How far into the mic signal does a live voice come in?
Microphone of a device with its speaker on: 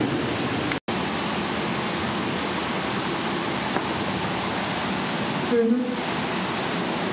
5.5 s

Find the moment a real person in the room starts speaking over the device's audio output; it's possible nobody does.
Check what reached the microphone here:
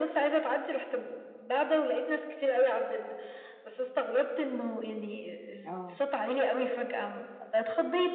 5.7 s

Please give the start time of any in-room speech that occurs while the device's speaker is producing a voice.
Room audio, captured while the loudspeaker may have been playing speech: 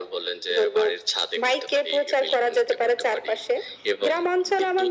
none

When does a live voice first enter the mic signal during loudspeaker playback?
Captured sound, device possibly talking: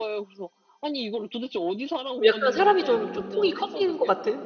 2.1 s

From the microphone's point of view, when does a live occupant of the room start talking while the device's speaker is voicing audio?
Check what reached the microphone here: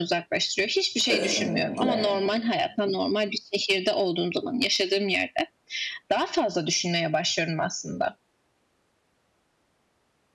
1.0 s

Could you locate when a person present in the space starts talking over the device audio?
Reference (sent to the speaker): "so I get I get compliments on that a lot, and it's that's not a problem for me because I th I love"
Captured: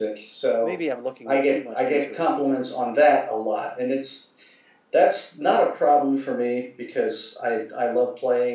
0.6 s

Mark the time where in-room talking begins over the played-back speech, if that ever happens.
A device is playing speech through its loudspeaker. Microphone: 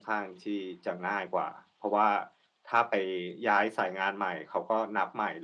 none

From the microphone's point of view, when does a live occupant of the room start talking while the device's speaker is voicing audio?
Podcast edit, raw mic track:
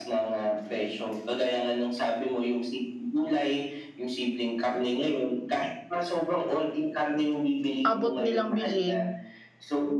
7.8 s

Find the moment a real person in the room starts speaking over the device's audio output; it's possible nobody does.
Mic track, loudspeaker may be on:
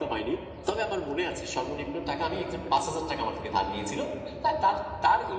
none

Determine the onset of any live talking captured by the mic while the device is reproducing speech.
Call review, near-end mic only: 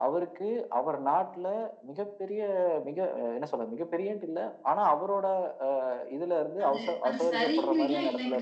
6.6 s

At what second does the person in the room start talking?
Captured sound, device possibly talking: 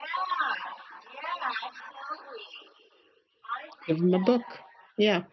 3.9 s

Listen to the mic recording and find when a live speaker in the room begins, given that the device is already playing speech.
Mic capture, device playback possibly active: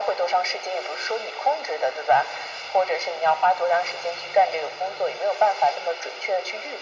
none

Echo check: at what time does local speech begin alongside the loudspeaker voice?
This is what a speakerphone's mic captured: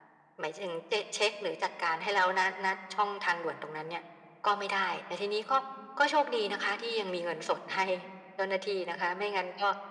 none

